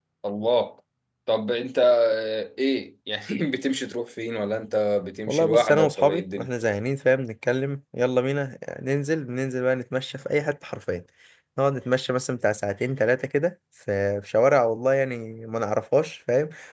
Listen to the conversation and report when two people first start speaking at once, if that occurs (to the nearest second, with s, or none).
5 s